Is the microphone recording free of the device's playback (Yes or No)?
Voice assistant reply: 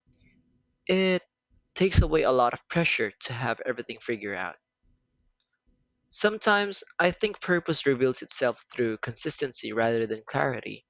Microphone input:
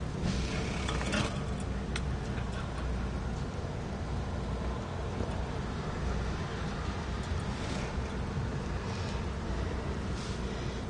Yes